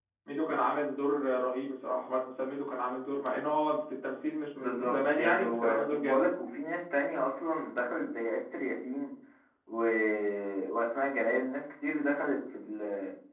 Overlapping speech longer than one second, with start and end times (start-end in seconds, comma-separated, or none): 4.6-6.2